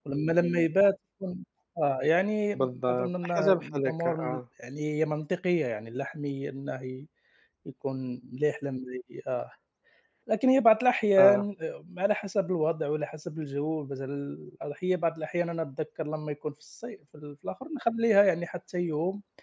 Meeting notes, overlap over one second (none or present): present